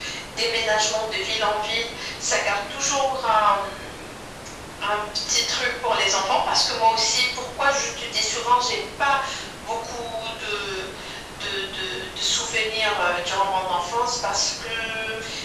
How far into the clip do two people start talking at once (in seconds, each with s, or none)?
none